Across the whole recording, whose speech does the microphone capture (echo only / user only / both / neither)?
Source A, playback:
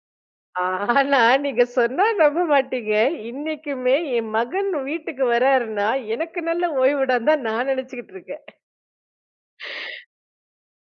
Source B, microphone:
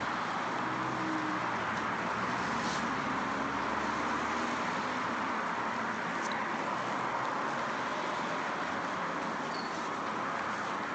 neither